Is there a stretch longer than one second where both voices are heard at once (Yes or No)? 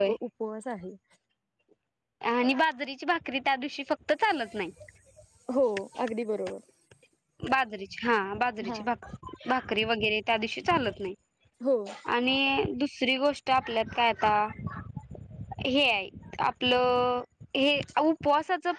No